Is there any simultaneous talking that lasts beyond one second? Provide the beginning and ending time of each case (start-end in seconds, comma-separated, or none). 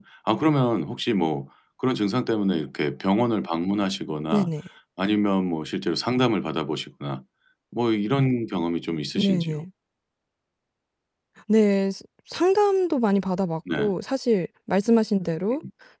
none